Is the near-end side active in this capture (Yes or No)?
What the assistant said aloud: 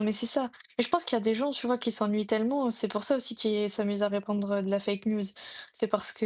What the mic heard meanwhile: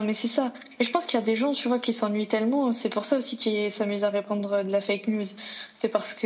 No